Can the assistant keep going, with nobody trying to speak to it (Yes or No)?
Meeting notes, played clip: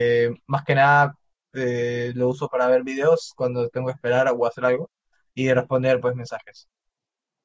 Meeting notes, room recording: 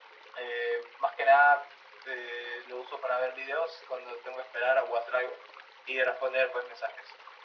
Yes